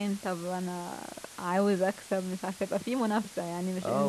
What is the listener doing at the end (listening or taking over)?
taking over